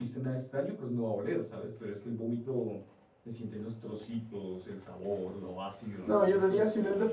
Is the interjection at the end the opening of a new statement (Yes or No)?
Yes